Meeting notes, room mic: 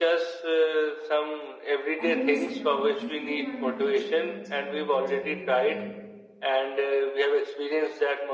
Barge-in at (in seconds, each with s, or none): 2.0 s